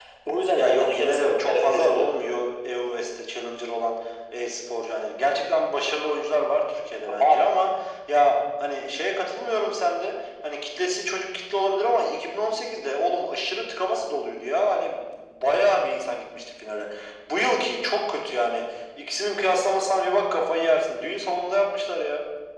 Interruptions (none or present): present